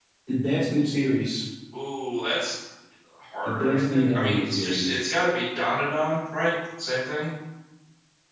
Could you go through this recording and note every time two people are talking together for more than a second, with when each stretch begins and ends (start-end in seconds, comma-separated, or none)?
3.5-5.0